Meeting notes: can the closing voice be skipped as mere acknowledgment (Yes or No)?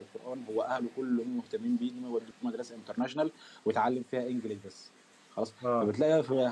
Yes